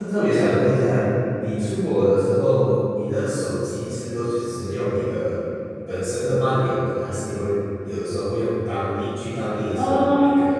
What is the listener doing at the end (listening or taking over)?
taking over